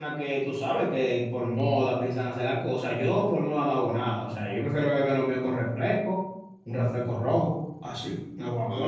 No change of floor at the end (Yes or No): No